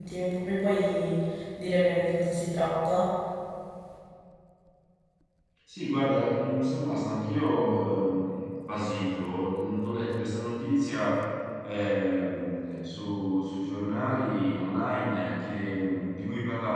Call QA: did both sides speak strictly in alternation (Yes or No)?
Yes